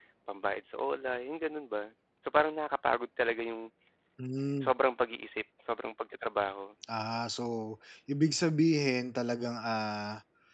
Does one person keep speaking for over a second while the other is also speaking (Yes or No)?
No